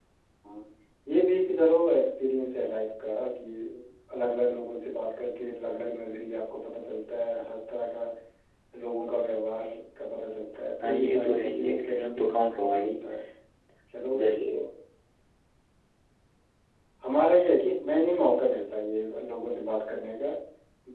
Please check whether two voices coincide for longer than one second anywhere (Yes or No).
Yes